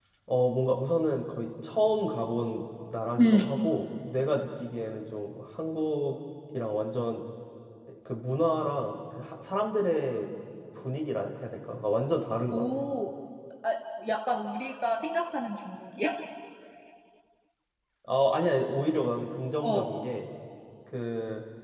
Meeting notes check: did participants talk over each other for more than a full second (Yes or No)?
No